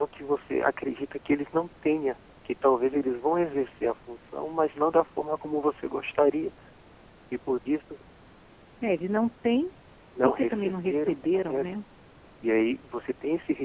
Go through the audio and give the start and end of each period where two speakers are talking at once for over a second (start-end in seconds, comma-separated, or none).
10.2-11.6